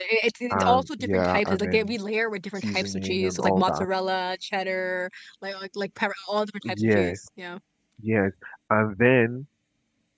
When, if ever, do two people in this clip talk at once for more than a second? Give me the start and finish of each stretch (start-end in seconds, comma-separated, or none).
0.5-2.0, 2.6-3.9